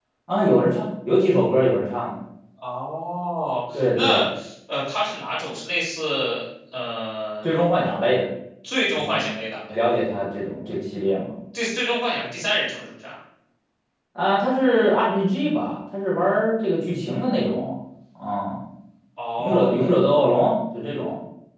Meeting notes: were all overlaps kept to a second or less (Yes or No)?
Yes